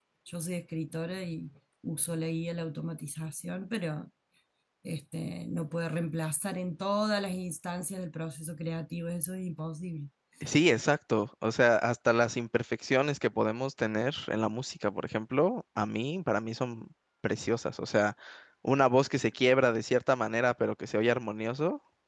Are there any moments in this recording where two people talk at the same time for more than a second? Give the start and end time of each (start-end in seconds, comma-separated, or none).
none